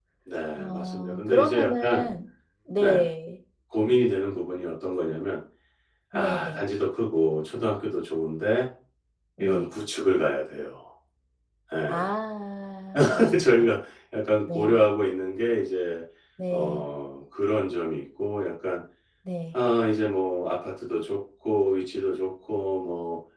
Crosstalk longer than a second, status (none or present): present